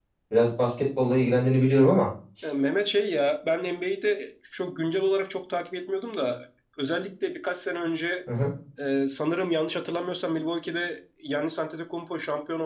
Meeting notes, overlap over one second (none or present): none